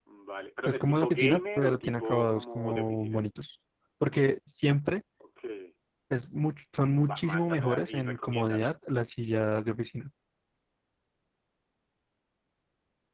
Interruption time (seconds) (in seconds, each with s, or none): 0.7 s